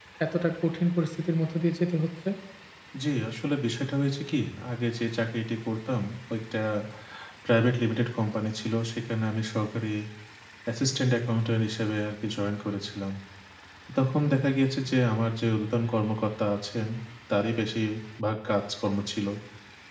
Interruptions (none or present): none